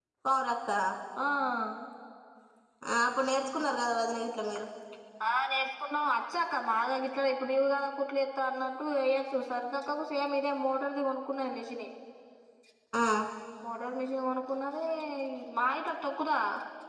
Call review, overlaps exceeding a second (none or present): none